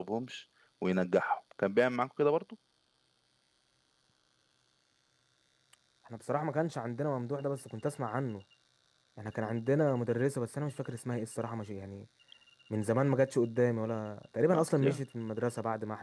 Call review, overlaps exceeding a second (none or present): none